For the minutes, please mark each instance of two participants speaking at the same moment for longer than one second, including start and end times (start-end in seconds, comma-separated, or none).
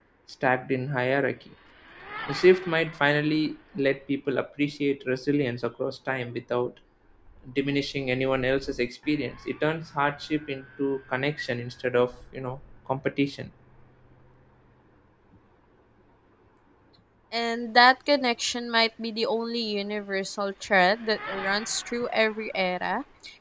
none